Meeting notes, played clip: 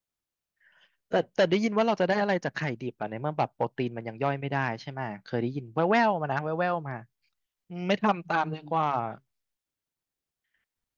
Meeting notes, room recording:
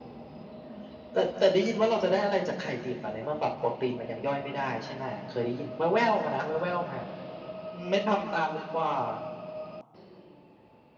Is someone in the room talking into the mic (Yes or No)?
No